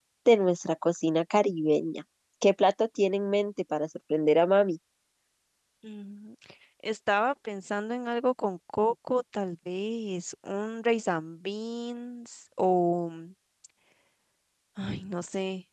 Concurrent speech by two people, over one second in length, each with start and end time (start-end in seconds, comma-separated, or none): none